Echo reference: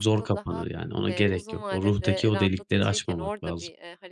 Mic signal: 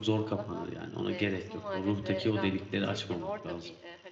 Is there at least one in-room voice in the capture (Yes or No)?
No